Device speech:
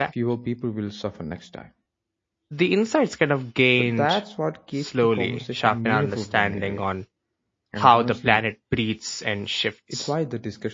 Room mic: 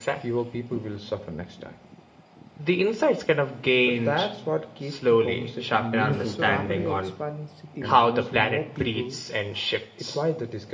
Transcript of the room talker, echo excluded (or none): So rapidly expanding cities put more people